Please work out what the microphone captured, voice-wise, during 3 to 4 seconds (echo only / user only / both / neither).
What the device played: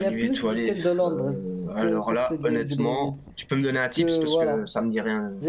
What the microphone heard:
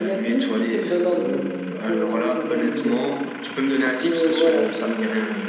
echo only